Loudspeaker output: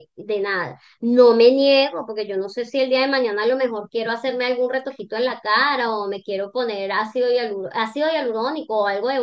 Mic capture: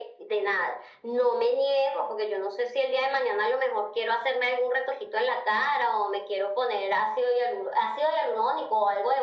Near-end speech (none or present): none